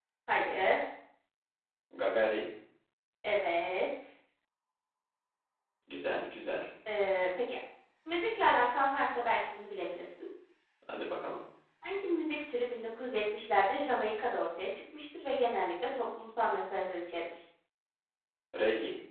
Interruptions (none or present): none